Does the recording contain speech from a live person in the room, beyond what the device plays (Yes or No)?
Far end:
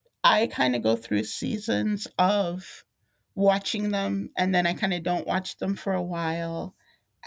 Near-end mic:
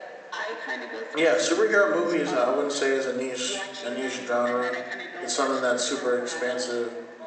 Yes